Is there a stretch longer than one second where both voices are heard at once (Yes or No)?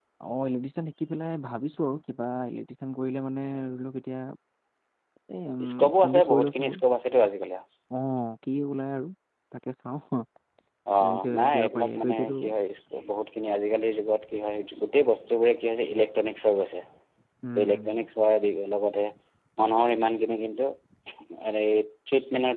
Yes